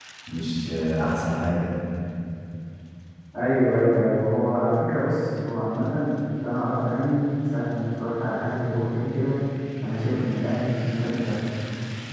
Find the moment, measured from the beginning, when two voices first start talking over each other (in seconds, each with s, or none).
none